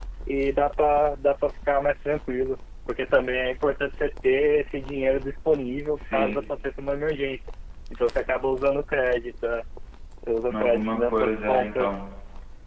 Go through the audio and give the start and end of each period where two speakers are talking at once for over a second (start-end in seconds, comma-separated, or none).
10.5-11.9